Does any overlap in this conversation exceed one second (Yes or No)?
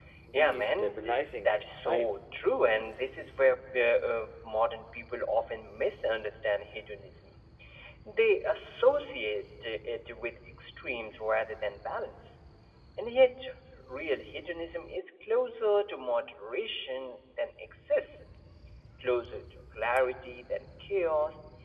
Yes